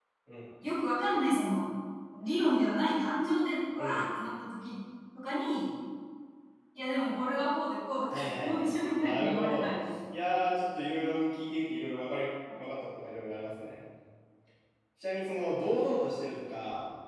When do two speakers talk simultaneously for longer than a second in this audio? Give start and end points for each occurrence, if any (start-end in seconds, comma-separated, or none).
8.1-9.7